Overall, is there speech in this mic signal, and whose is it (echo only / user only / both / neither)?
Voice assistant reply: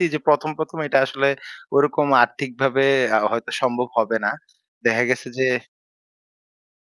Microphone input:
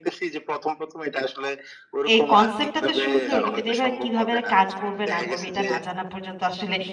both